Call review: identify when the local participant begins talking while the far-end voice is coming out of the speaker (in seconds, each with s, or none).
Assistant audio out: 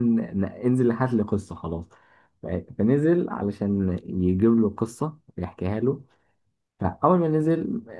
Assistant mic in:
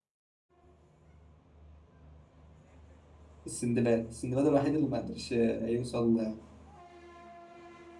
3.5 s